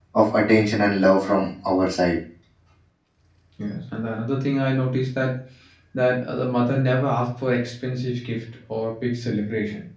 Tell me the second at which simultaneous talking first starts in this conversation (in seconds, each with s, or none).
none